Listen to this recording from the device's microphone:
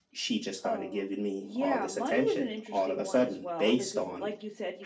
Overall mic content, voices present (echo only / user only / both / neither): echo only